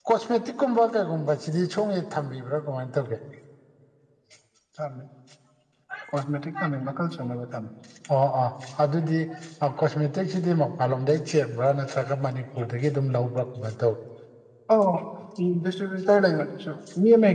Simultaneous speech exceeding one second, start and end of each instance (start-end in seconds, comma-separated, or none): none